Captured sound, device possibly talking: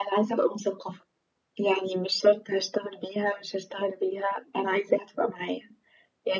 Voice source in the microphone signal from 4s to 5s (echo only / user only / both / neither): echo only